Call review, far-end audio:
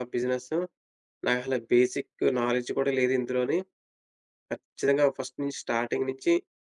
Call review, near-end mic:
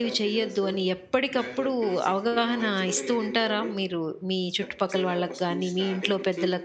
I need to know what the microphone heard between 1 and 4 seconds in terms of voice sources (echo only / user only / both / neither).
both